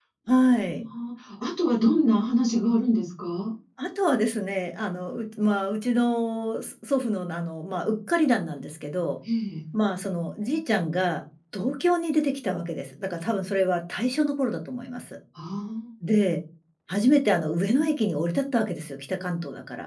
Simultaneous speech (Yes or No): No